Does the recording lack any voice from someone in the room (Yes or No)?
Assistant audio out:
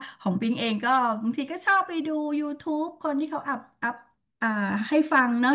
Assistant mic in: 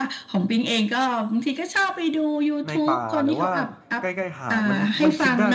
No